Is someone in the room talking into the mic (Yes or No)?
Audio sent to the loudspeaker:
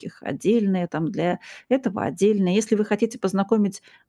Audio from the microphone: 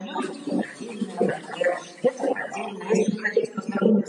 No